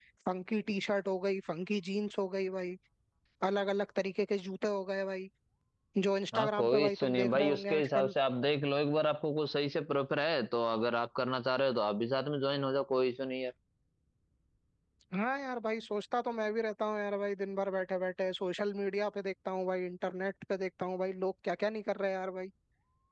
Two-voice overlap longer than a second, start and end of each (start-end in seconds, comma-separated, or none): 6.3-8.1